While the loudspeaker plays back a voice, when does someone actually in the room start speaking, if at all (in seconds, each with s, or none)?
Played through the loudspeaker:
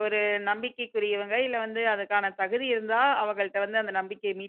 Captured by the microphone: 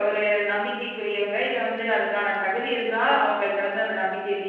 none